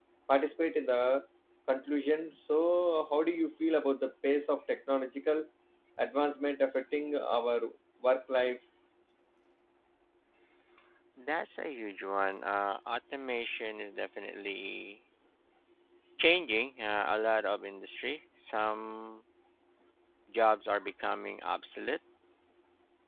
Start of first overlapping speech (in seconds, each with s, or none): none